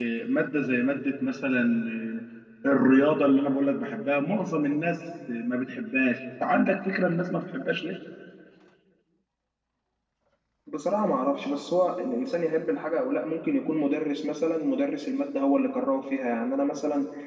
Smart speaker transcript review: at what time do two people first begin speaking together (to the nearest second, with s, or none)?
none